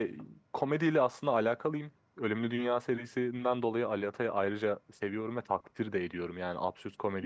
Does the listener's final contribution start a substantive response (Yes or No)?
No